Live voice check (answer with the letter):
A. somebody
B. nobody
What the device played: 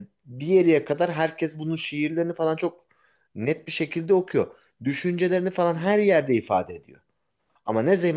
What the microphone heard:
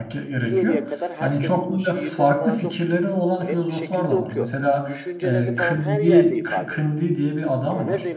A